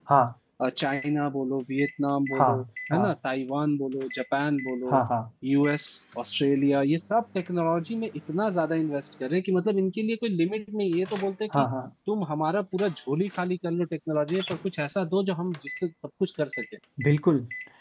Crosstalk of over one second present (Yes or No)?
No